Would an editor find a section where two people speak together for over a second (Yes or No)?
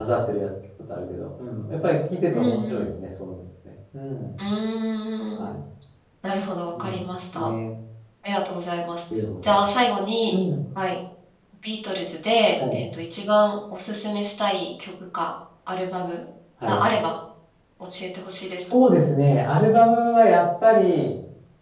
No